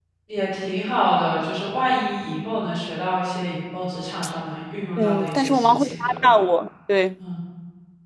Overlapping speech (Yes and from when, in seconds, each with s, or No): Yes, from 5.0 s